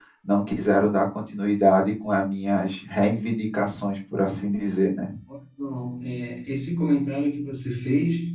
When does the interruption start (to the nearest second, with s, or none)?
none